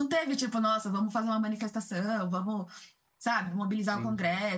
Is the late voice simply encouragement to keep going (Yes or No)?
Yes